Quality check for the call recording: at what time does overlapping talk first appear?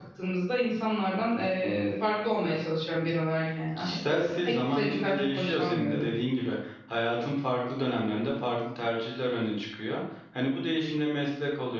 3.8 s

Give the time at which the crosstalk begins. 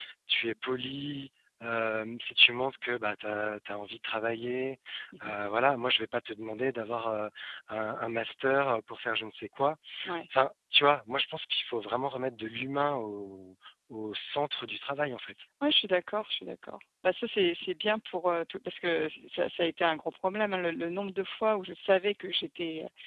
none

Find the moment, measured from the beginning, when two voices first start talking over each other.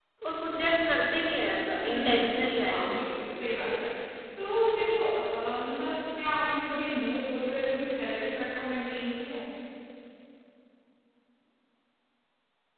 1.8 s

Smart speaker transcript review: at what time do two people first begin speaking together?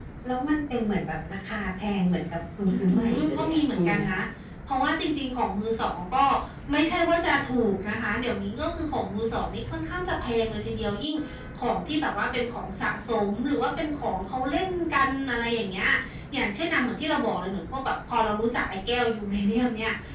2.7 s

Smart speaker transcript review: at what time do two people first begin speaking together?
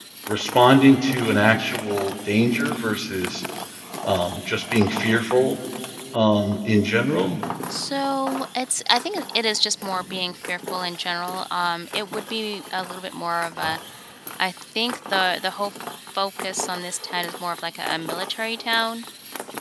none

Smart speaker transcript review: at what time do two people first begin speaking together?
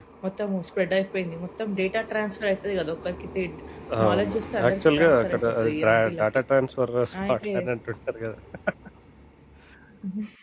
4.1 s

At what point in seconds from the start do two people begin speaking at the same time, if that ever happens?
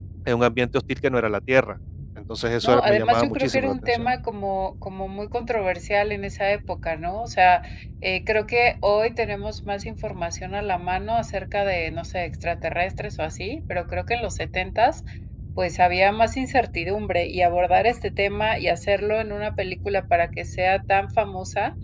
2.6 s

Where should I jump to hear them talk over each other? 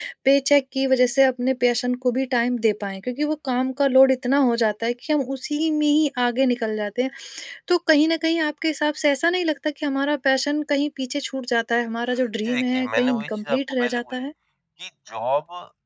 12.4 s

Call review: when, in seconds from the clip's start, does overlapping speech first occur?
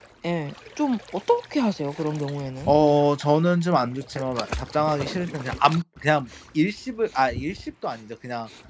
none

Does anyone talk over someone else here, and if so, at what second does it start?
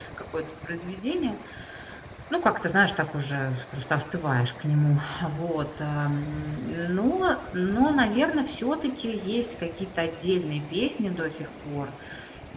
none

